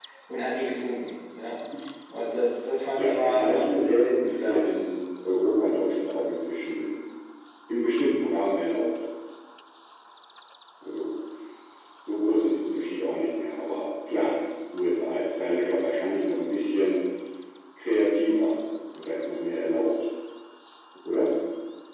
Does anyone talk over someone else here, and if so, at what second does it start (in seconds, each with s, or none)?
3.0 s